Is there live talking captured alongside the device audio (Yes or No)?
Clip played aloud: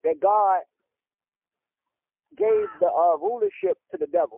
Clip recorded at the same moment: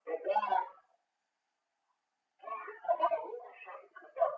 No